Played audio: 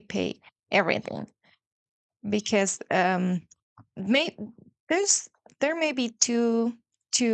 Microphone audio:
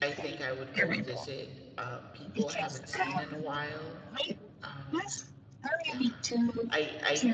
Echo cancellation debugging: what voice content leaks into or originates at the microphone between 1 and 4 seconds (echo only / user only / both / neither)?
both